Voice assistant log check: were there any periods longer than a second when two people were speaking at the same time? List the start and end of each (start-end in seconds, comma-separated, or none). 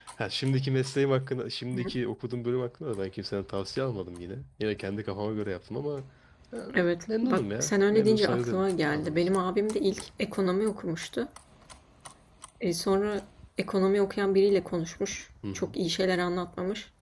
7.2-9.4